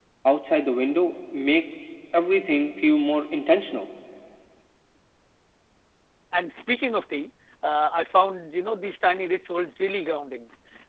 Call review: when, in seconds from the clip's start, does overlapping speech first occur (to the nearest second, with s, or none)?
none